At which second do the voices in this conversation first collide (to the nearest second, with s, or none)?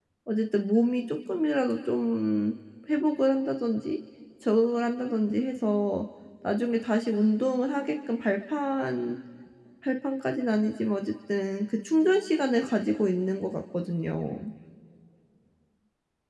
none